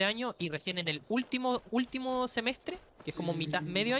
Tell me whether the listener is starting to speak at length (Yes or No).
No